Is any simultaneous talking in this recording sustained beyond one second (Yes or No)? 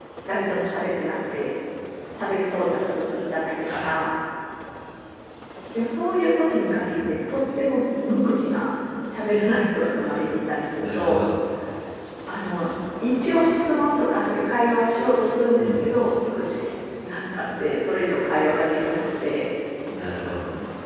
No